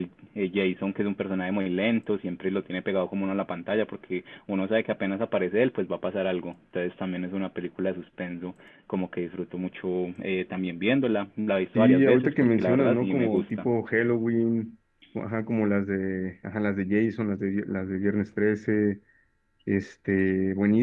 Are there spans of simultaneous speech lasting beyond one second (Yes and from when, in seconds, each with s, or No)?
Yes, from 11.8 s